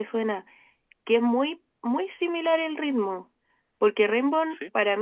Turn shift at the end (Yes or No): No